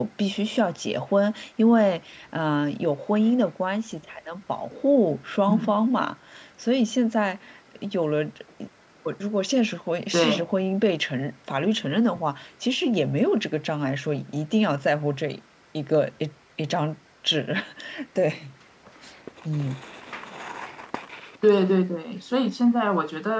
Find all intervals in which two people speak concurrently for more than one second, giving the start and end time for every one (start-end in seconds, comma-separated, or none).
none